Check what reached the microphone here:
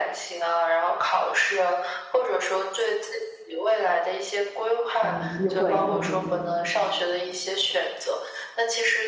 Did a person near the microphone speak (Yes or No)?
Yes